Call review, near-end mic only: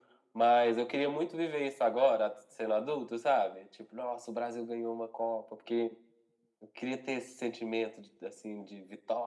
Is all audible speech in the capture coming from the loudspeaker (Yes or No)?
Yes